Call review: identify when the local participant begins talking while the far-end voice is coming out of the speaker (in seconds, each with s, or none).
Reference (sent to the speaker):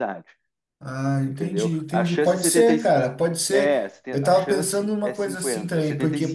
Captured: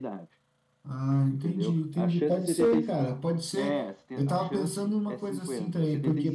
none